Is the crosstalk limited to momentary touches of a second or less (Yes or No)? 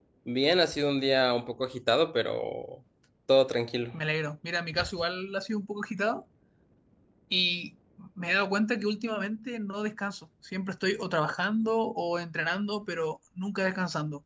Yes